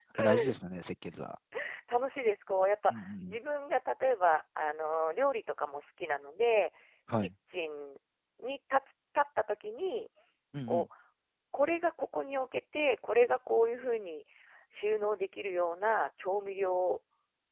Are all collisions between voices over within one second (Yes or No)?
Yes